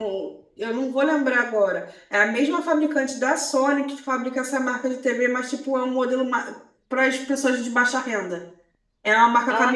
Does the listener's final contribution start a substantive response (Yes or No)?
No